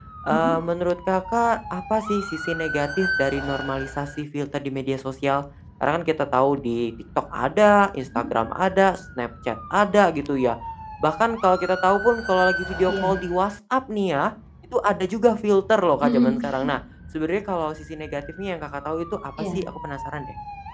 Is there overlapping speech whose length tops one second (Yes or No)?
No